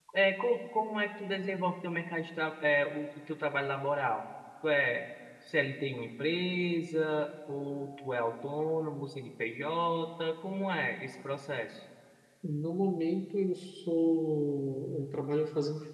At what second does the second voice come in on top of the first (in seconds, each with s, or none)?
none